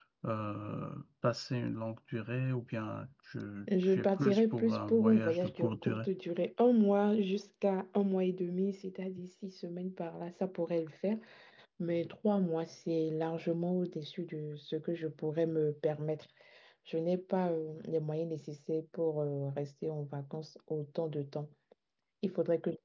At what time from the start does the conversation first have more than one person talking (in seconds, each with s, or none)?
3.9 s